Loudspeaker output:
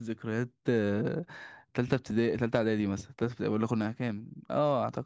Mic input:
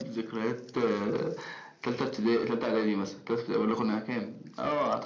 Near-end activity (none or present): none